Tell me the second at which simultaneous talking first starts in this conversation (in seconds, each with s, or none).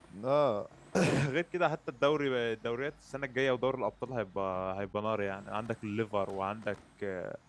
none